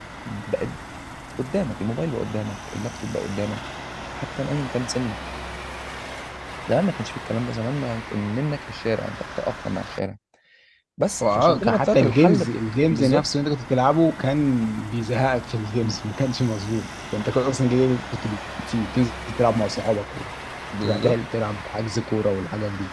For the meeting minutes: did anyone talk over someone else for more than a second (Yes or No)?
Yes